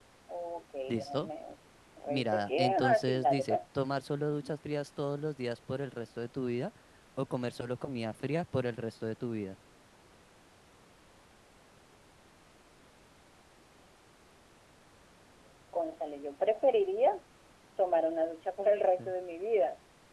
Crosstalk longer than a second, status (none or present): present